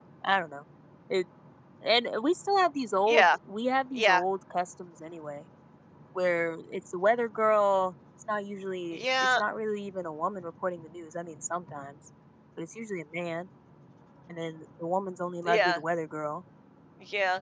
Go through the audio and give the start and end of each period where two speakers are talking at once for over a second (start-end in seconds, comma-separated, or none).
none